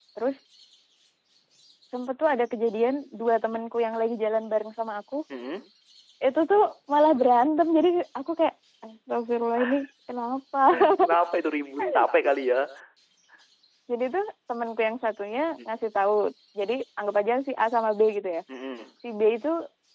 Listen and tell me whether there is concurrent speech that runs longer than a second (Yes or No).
No